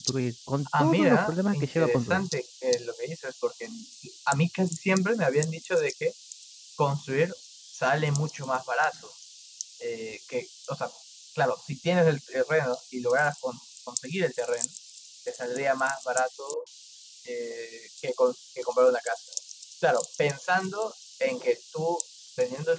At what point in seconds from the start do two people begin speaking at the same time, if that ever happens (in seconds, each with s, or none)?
0.8 s